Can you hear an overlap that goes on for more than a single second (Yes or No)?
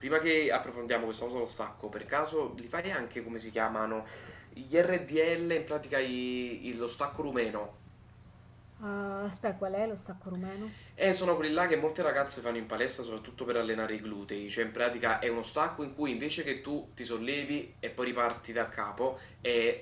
No